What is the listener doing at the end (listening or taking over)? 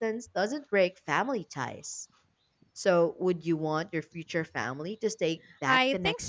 taking over